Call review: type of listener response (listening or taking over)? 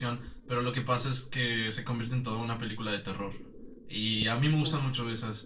listening